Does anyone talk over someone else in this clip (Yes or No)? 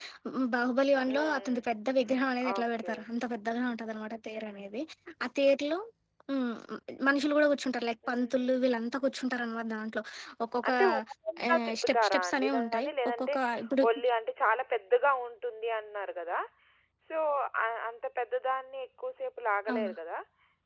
Yes